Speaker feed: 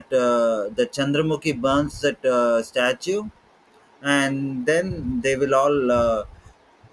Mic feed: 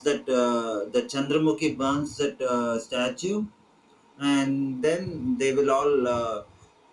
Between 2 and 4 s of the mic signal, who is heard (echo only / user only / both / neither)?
echo only